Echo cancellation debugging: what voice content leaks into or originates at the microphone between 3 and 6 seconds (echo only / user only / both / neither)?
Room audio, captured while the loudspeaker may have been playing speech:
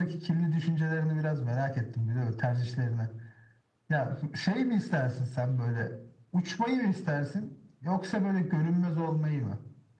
echo only